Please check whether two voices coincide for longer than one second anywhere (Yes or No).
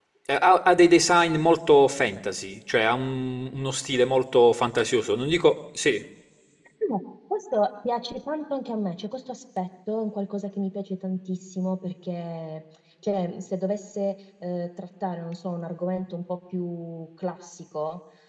No